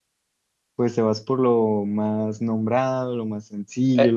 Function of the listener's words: taking over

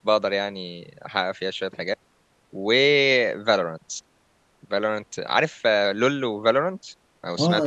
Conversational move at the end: taking over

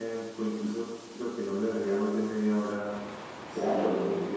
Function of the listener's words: taking over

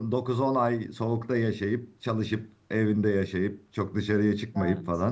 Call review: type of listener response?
listening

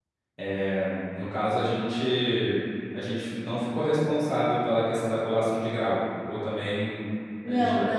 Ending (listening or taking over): taking over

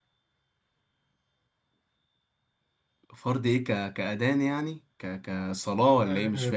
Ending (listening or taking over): taking over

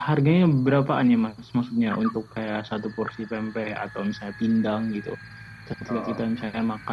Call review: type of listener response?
listening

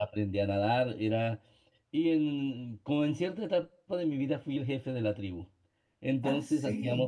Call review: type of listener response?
listening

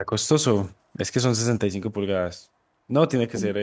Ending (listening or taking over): listening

